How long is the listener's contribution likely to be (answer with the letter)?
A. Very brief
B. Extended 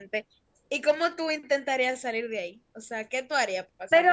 B